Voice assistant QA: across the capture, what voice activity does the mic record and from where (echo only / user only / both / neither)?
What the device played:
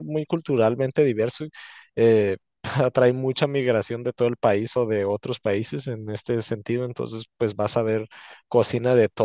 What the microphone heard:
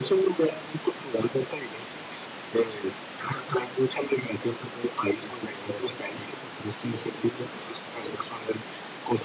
echo only